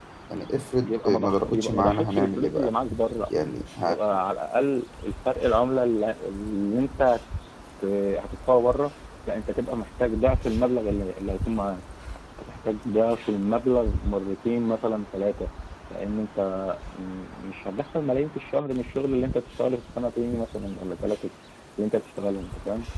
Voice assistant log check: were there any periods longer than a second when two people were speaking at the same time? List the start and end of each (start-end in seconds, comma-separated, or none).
0.8-2.7